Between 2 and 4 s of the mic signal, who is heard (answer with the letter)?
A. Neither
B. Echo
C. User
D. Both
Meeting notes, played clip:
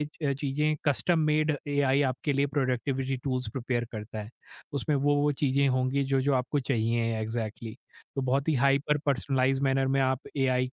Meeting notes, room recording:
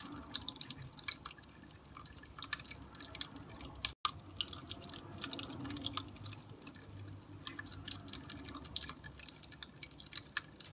A